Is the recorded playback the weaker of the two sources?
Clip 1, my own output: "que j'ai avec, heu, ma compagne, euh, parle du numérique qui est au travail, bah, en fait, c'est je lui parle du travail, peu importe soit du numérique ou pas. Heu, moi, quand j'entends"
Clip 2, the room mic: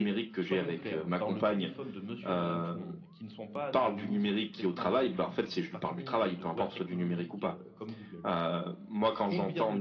No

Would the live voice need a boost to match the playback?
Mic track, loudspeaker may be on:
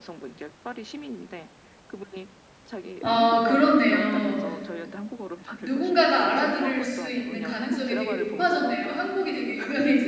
No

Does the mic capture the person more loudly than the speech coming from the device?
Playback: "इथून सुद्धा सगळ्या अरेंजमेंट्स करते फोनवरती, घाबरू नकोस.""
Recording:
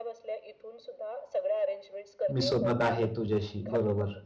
Yes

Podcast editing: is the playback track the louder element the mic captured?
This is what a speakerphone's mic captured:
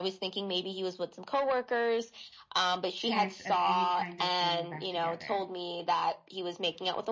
Yes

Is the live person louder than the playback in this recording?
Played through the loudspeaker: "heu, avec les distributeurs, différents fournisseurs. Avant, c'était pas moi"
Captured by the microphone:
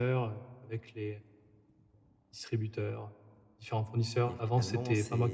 No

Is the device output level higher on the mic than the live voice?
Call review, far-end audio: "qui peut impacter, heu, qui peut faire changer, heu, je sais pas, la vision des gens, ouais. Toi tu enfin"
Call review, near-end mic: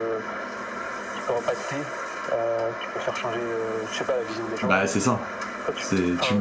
No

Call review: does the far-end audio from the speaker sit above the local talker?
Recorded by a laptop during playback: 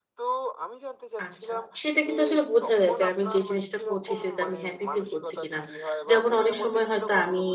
No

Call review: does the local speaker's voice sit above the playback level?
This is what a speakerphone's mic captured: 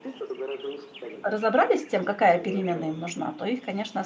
Yes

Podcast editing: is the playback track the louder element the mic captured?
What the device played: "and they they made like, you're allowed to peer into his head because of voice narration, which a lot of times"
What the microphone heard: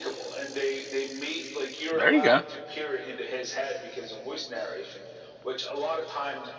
No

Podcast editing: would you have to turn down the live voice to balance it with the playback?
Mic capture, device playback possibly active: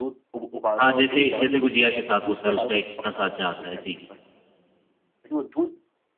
Yes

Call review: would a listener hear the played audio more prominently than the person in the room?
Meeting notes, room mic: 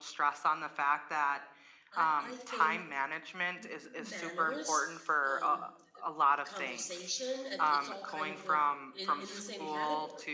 Yes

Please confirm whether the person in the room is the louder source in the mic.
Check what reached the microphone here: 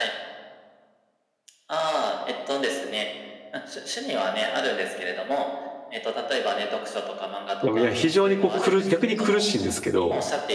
Yes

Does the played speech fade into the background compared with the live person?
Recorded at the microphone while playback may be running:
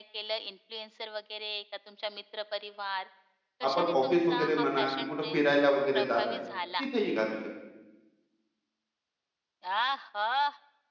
Yes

